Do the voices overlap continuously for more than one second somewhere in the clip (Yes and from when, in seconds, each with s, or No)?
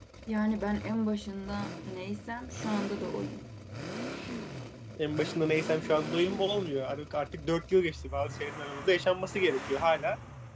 No